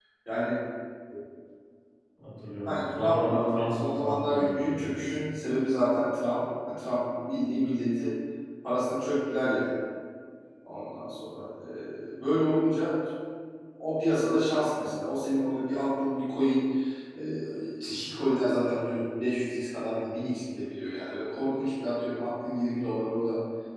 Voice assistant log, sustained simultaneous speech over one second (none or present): present